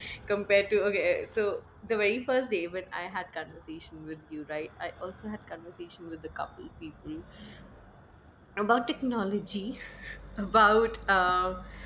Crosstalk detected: No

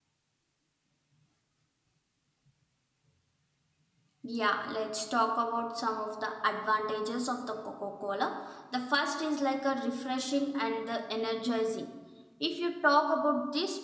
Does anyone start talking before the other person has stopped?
No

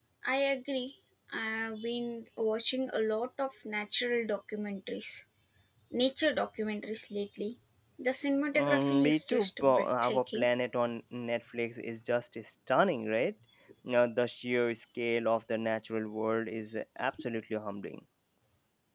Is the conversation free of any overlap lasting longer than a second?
No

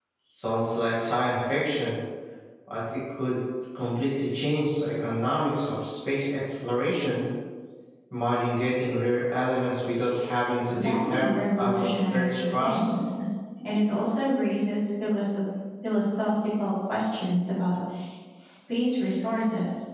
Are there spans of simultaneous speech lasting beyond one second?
Yes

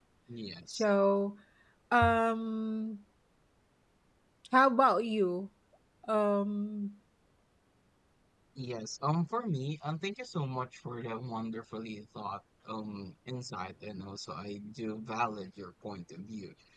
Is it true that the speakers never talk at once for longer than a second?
Yes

